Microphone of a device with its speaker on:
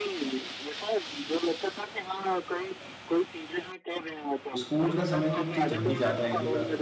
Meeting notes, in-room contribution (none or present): present